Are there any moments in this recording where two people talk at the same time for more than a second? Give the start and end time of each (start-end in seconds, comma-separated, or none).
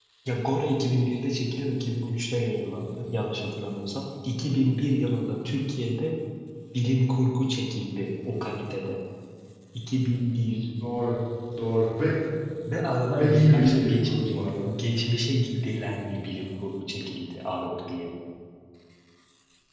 13.2-14.4